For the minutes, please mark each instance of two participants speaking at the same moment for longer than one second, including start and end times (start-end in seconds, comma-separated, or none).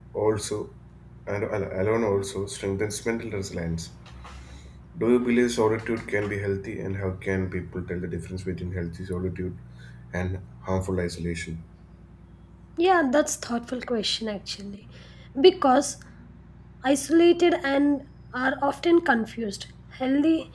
none